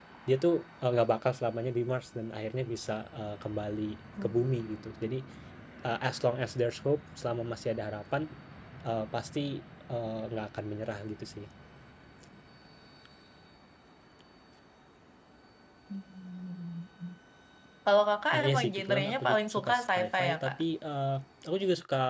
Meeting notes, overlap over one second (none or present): present